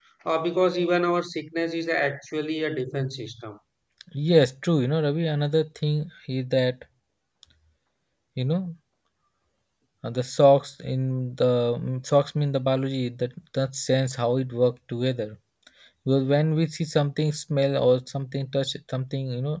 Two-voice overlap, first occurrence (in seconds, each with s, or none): none